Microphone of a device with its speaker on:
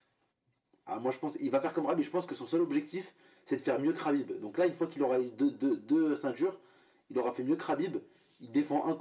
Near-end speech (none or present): none